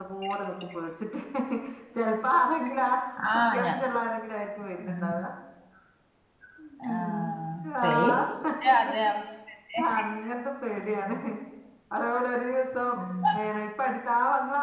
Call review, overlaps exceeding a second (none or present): none